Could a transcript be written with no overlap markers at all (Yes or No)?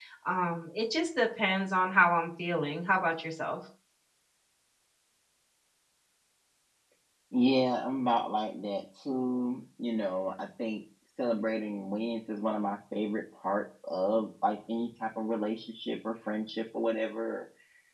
Yes